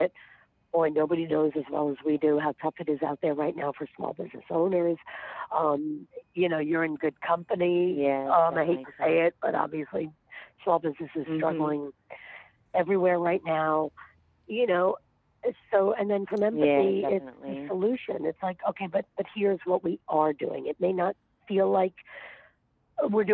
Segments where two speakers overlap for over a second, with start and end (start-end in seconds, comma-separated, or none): 7.9-9.2, 16.5-17.7